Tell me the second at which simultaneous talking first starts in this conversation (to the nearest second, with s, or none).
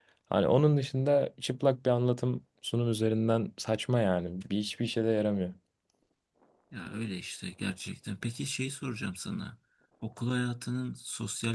none